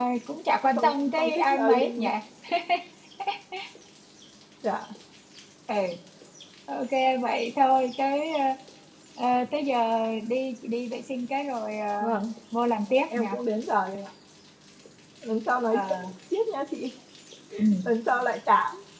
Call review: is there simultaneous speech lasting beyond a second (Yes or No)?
Yes